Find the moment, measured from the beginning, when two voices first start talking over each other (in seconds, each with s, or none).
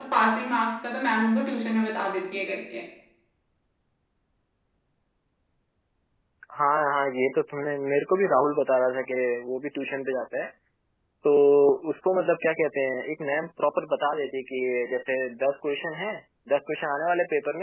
none